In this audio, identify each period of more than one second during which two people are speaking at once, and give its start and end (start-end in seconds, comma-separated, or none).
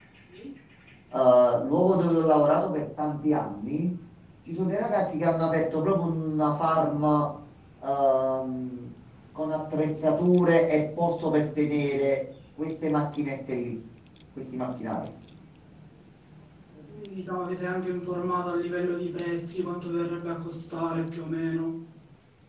none